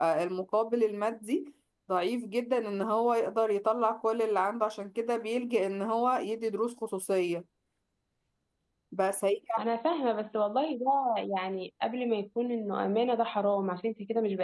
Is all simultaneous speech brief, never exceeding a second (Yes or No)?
Yes